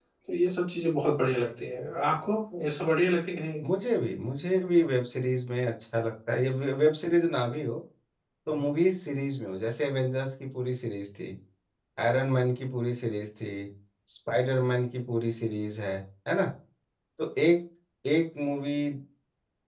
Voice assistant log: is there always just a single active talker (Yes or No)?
Yes